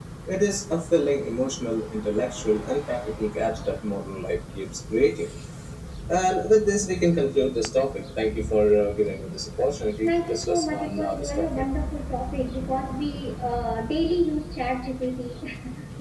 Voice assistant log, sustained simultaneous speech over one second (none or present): present